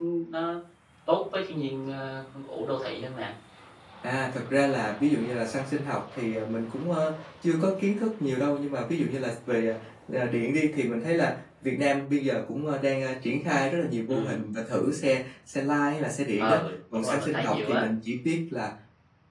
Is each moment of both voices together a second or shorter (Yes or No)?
No